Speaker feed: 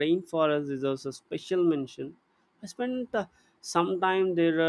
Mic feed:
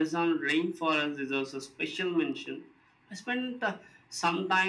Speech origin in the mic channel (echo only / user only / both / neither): echo only